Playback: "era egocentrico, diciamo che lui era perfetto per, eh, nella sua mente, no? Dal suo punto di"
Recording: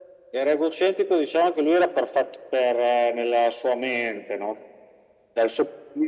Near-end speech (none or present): none